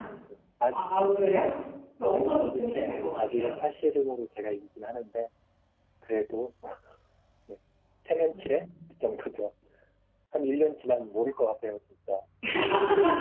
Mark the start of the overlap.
2.1 s

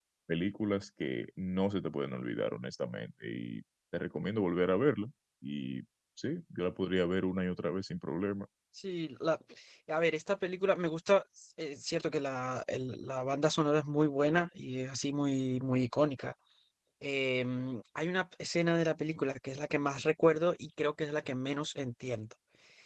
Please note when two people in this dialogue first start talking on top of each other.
none

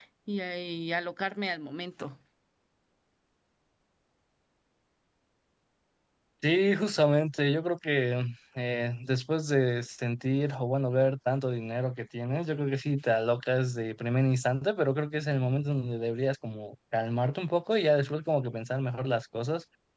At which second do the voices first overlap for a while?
none

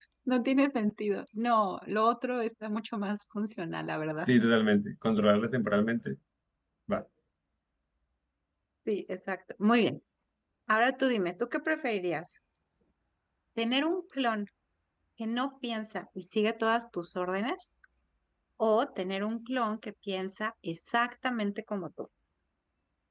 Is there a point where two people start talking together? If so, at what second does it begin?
none

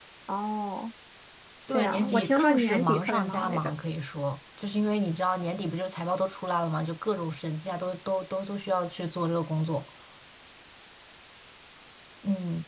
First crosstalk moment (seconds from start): 1.7 s

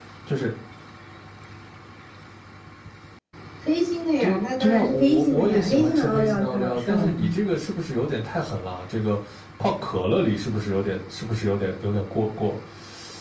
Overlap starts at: 4.2 s

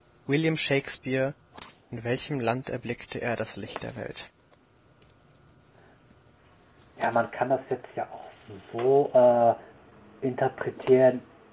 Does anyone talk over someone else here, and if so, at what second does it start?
none

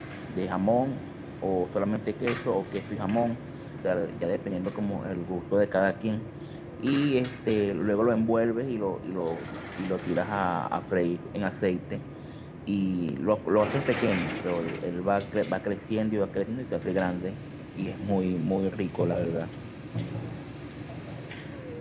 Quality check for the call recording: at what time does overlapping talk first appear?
none

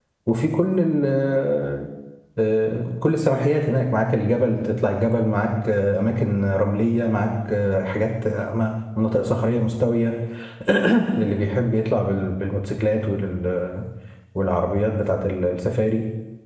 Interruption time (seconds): none

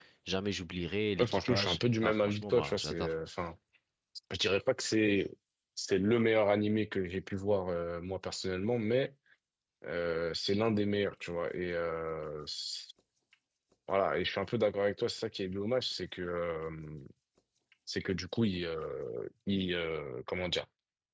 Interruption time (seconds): 1.2 s

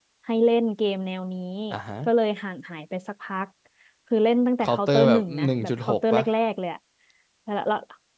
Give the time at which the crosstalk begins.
4.6 s

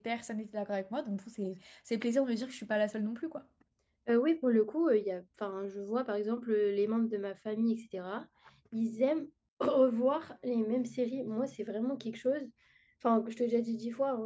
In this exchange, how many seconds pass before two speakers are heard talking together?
none

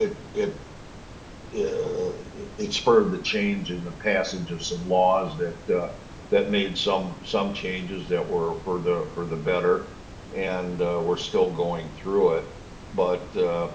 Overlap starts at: none

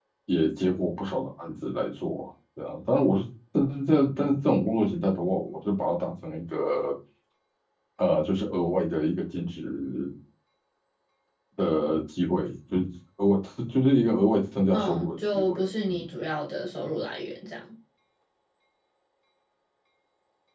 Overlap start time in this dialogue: 14.7 s

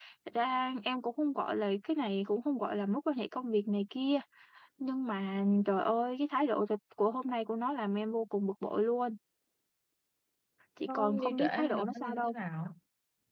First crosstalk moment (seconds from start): 10.8 s

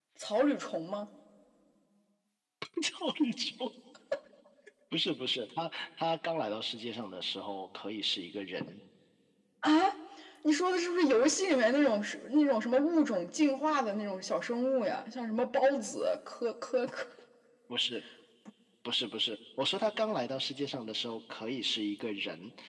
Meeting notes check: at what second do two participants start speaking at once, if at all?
none

